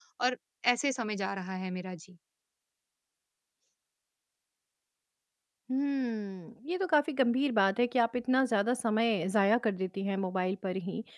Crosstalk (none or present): none